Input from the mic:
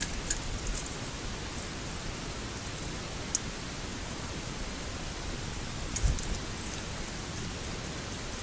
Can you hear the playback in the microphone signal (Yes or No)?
No